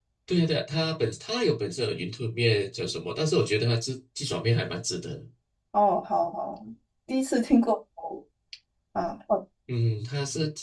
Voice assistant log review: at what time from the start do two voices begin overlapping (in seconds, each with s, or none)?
none